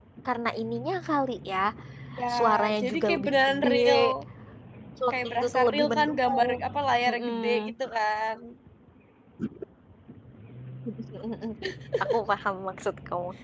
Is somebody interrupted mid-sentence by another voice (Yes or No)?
Yes